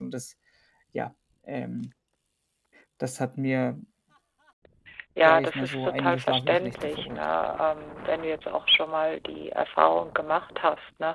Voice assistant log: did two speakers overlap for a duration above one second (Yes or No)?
Yes